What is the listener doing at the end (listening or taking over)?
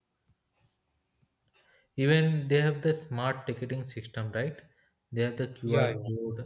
listening